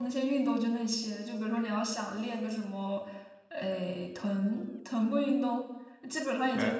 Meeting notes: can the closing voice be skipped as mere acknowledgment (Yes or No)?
Yes